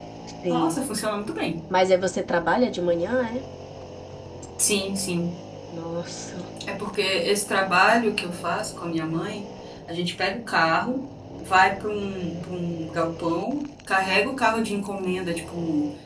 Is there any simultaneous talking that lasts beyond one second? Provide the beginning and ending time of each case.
none

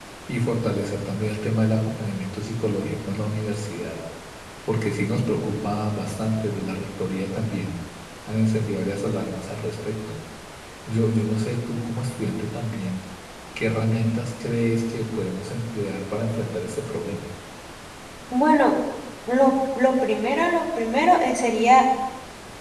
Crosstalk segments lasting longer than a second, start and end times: none

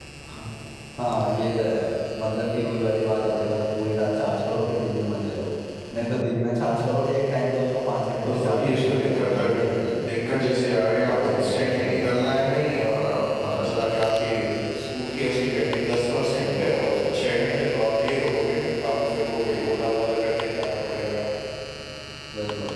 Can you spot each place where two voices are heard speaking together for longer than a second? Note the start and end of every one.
8.2-9.7, 11.1-12.3

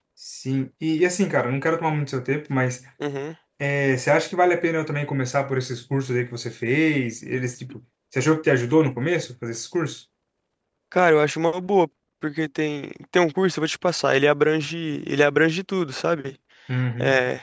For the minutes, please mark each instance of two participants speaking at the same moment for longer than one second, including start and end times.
none

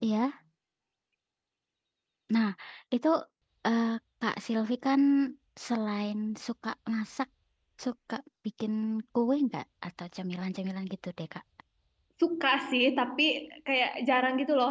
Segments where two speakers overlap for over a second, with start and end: none

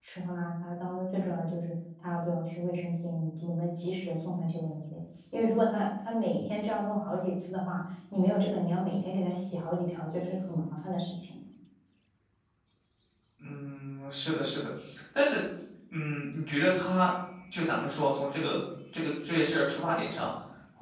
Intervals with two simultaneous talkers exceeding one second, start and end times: none

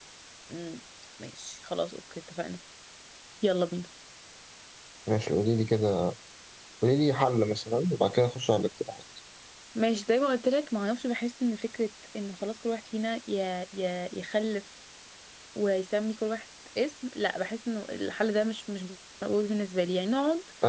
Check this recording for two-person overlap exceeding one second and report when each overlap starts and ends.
none

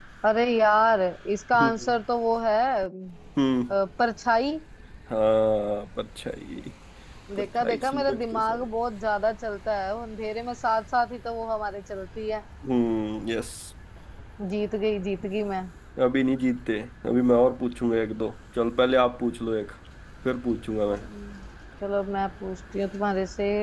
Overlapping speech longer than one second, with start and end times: 7.4-8.6

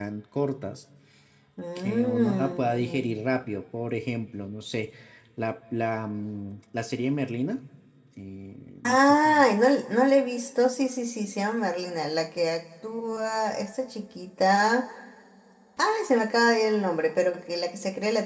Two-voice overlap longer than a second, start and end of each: 1.8-3.1

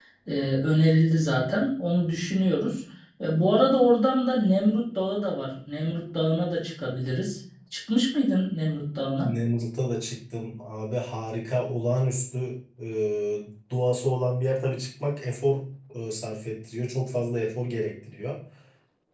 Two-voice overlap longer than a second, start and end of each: none

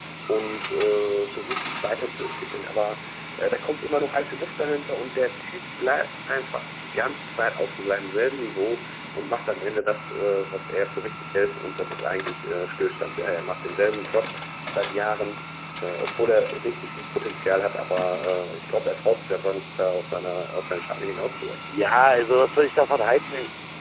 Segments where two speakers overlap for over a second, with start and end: none

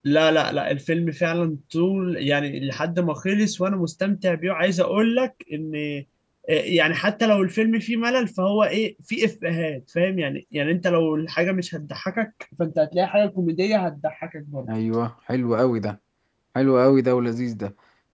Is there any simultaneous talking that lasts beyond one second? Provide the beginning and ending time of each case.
none

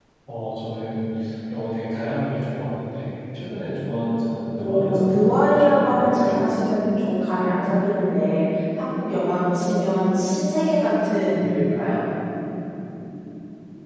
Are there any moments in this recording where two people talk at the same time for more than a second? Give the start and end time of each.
4.6-6.4

